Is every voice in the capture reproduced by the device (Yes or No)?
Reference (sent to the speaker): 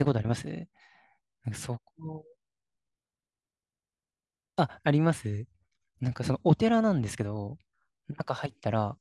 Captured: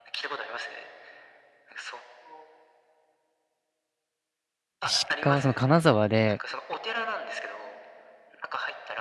No